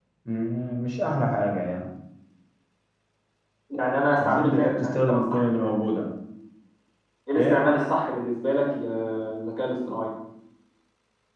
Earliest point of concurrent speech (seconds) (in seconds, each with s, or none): 4.2 s